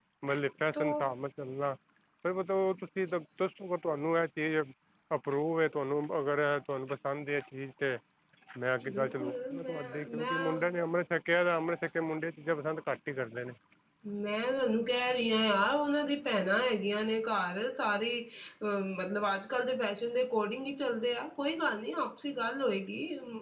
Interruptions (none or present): present